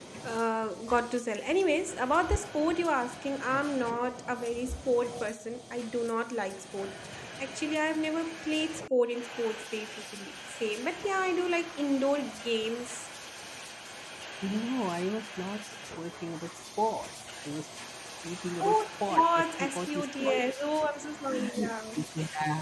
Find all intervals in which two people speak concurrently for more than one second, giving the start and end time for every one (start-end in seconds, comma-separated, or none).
18.6-20.4